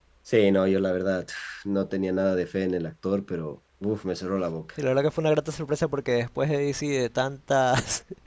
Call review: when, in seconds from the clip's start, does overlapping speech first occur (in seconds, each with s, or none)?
none